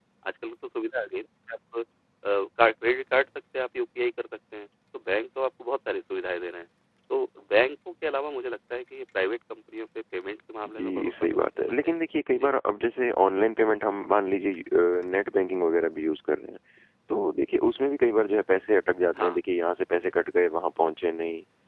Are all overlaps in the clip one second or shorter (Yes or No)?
No